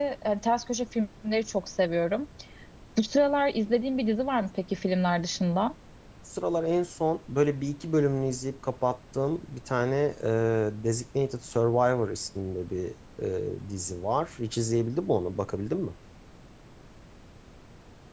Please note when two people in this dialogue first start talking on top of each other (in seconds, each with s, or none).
none